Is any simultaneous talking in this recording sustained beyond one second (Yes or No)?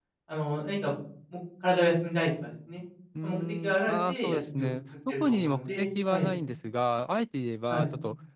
Yes